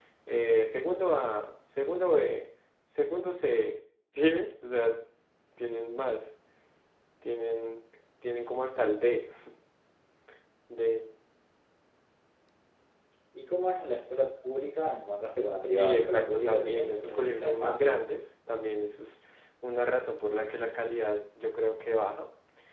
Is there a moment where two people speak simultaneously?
Yes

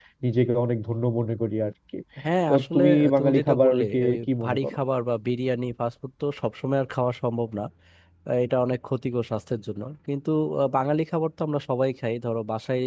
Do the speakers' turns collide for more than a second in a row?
Yes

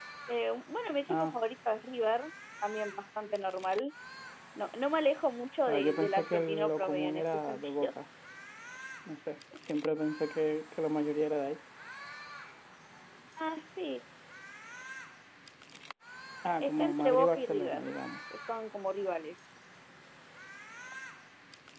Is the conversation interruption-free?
No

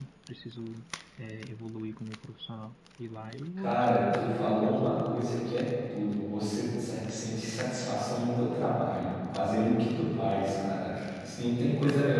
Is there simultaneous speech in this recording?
Yes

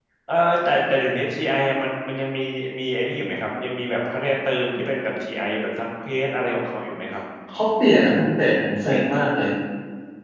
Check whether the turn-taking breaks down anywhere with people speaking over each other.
No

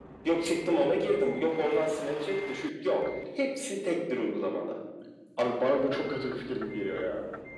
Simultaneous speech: No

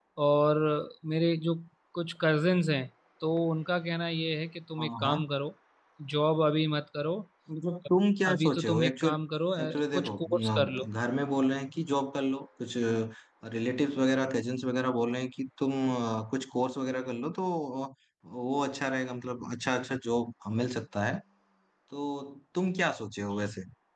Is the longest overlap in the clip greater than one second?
Yes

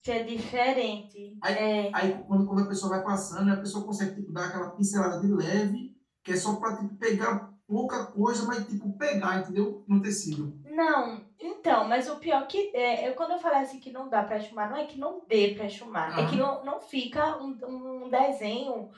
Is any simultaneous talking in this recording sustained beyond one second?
No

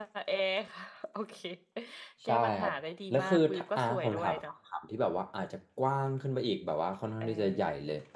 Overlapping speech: Yes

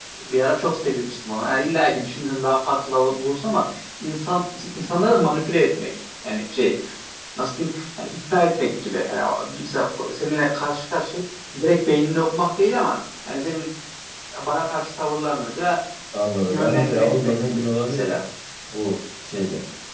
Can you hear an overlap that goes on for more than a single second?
Yes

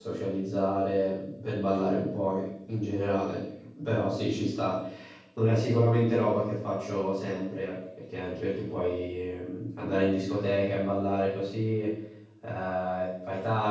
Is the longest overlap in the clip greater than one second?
No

